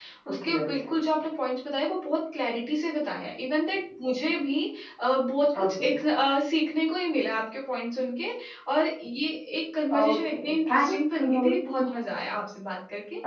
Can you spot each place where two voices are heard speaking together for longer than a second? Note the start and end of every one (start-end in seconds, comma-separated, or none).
10.0-11.8